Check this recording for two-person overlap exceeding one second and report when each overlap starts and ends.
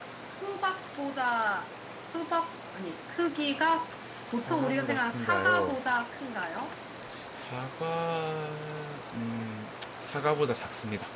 4.3-5.7

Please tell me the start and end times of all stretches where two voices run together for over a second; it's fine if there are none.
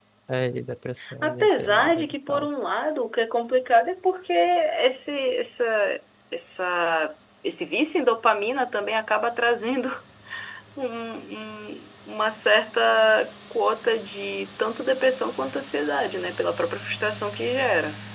1.2-2.5

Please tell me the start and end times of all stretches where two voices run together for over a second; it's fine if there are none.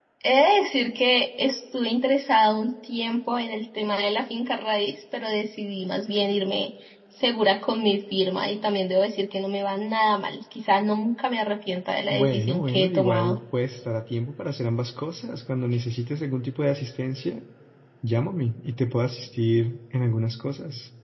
12.1-13.4

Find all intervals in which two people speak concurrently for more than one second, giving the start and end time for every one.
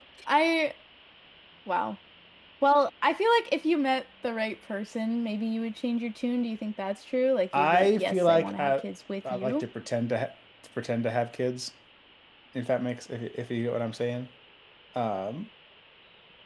7.6-8.8

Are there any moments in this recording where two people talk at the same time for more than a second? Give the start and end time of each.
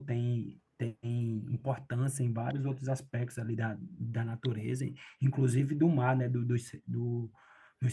none

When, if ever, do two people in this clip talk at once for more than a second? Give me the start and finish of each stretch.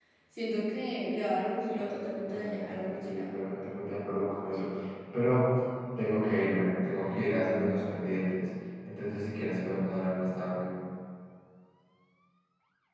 1.8-3.3

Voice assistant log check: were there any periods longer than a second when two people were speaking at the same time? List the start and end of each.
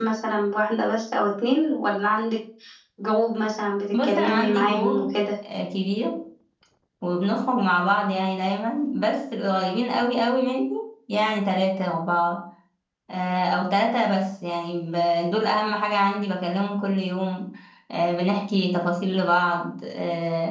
3.9-5.2

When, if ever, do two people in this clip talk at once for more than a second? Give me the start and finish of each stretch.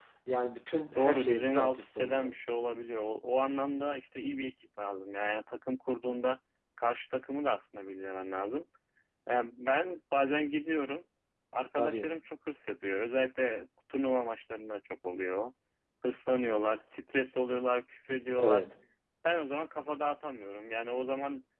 0.9-2.3

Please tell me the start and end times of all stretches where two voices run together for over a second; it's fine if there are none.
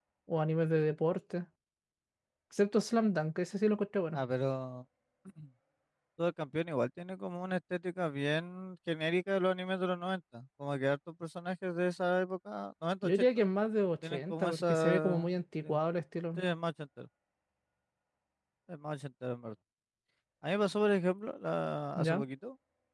14.1-15.8

